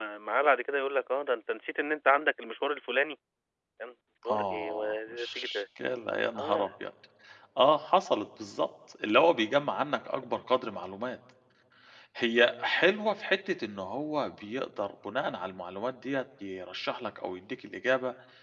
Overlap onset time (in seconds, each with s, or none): 4.3 s